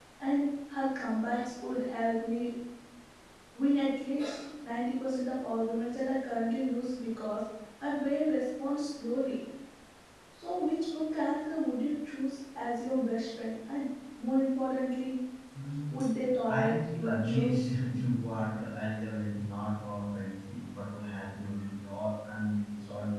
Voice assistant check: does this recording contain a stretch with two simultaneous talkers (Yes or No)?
Yes